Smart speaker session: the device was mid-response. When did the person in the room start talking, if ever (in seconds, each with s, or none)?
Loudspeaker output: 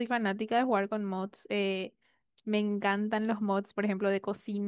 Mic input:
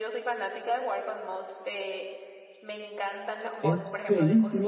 3.6 s